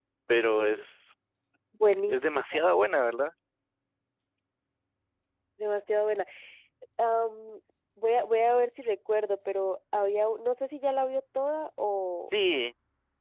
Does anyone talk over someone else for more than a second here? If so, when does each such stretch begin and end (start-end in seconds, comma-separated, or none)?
none